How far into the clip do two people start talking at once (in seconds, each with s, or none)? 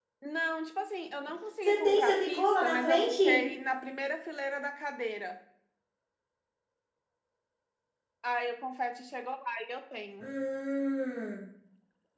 1.6 s